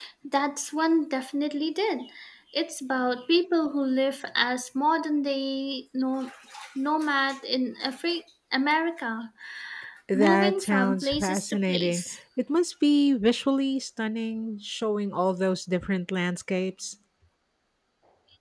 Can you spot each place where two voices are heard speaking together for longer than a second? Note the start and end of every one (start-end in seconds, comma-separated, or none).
10.1-12.0